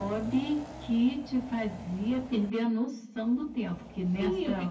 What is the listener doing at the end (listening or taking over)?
taking over